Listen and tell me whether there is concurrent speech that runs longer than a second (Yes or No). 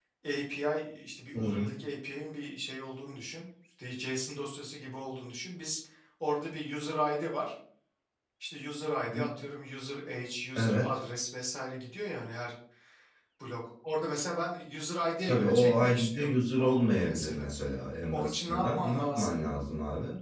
Yes